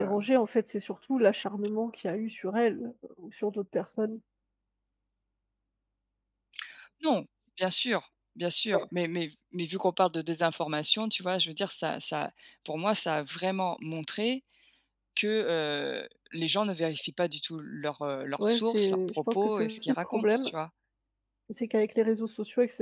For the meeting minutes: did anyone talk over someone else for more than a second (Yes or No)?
Yes